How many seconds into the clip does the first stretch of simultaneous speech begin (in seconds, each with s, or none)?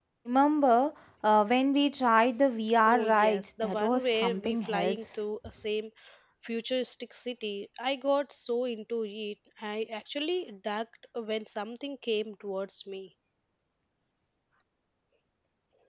2.8 s